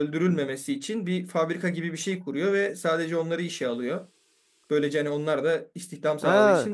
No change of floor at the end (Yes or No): No